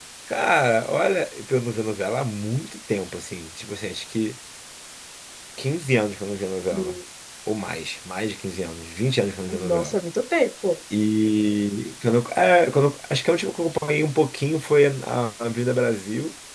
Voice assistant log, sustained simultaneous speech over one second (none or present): none